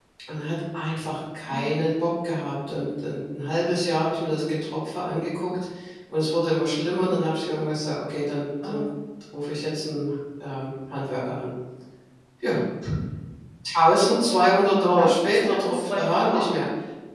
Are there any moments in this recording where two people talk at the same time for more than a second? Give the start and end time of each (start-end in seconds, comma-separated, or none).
14.9-16.4